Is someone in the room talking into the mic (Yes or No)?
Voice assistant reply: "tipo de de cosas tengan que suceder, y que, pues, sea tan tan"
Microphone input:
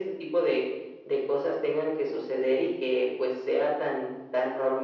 No